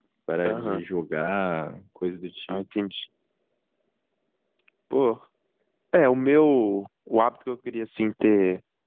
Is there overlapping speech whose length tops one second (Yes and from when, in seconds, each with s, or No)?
No